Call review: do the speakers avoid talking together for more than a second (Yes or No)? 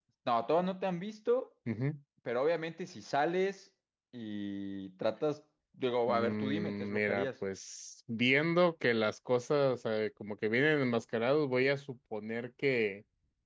No